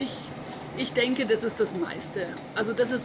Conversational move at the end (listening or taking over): listening